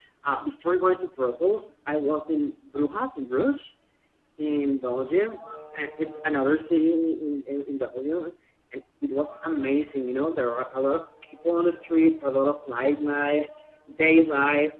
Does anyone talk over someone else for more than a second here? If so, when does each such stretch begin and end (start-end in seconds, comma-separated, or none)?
none